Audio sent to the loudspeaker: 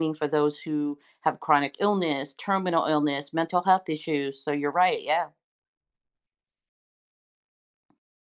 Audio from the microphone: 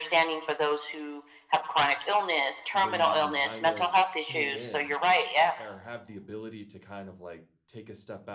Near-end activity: present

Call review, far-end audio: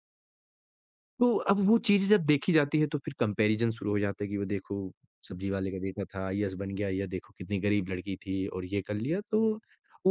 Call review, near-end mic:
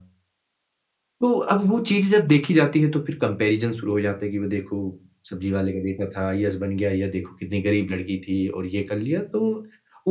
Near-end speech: none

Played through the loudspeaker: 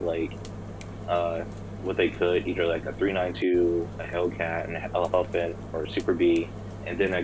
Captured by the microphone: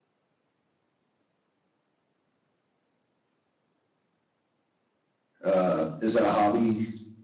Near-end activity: present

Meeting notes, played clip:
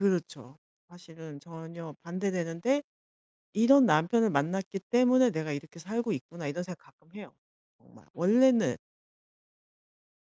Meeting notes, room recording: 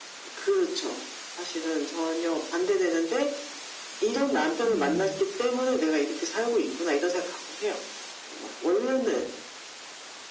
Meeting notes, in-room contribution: present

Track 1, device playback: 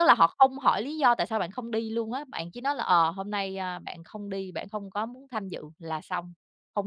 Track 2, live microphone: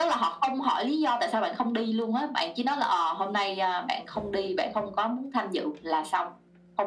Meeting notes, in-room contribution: none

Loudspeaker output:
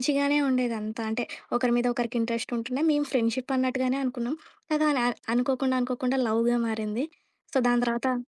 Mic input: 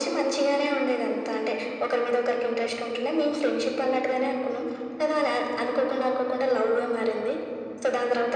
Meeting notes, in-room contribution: none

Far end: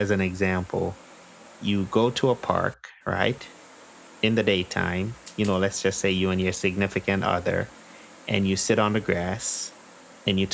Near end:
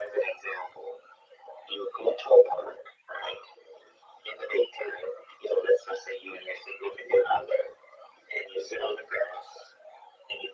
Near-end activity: none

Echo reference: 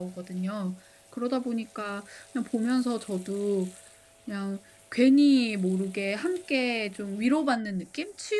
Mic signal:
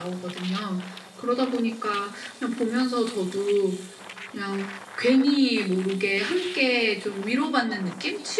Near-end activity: none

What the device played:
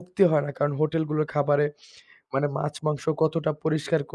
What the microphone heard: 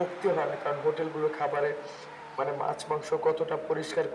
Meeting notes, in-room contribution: none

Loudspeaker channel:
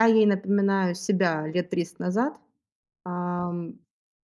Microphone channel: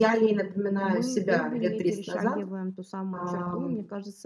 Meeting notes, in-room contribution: present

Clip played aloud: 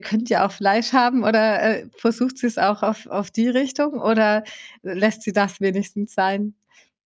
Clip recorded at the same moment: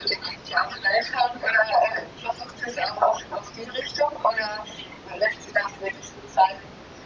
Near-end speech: none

